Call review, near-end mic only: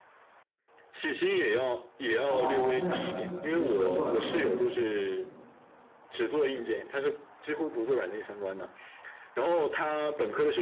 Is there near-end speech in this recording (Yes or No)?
Yes